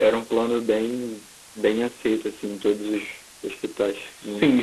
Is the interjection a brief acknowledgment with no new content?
No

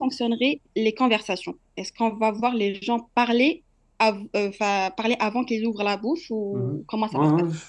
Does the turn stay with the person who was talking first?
No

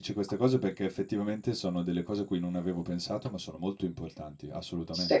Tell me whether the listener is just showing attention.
No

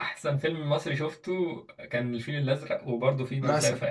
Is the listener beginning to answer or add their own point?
Yes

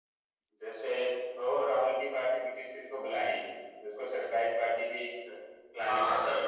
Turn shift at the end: Yes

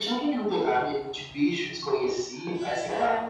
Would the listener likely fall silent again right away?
No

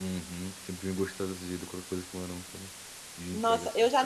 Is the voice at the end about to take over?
Yes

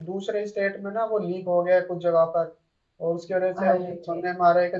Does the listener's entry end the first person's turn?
No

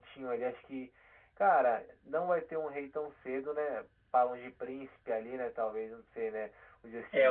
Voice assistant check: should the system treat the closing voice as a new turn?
Yes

